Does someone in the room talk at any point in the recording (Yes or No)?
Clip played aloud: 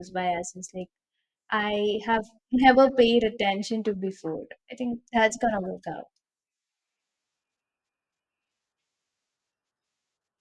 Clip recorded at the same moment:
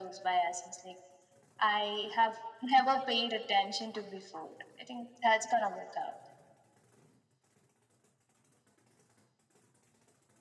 No